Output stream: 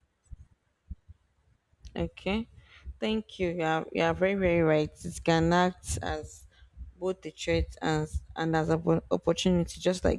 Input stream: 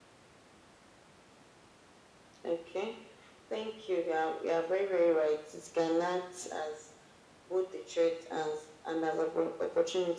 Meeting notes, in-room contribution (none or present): none